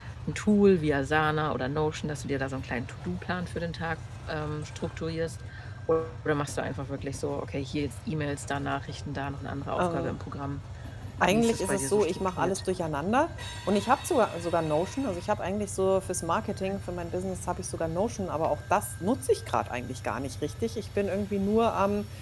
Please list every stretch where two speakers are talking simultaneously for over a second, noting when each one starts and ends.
11.3-12.6

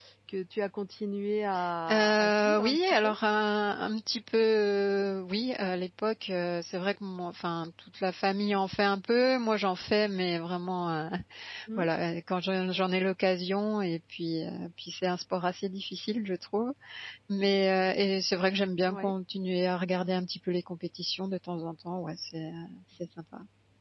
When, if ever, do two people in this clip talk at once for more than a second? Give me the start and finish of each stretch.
1.9-3.1

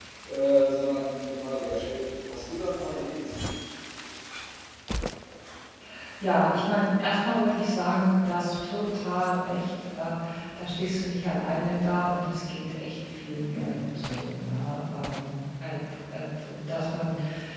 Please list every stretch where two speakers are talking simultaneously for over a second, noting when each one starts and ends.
none

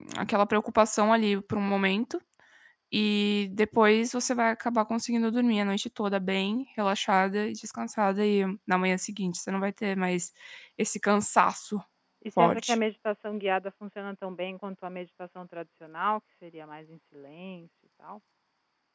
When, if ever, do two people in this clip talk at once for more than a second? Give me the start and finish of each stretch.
none

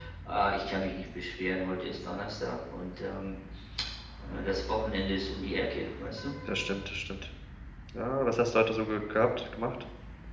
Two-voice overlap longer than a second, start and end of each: none

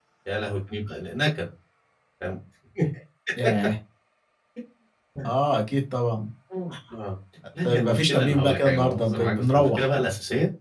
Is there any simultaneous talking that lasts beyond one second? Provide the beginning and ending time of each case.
7.6-9.9

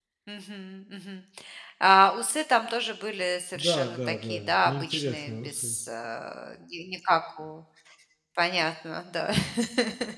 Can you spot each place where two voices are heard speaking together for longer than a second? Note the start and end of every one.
3.5-5.8

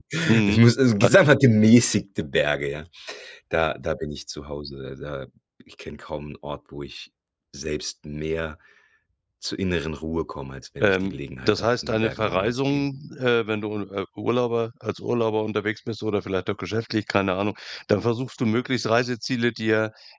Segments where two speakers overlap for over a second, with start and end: 10.8-12.9

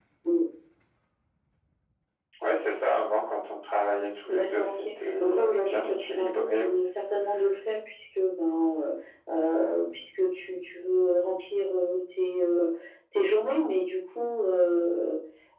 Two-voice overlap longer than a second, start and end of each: 4.3-6.8

